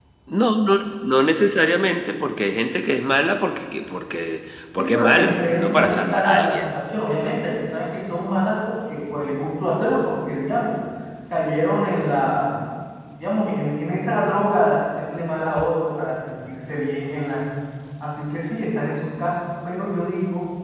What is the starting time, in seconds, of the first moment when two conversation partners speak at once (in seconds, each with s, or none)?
4.8 s